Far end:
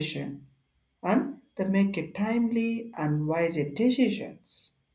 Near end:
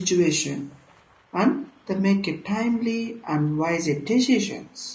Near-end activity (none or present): none